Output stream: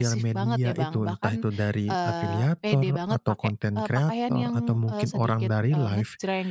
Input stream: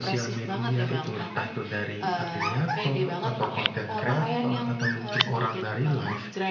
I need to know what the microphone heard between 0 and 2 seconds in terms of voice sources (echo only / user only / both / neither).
echo only